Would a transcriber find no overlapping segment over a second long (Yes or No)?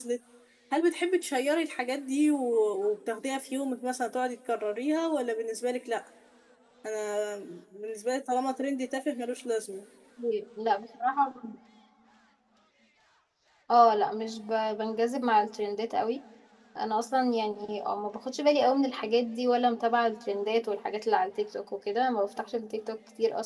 Yes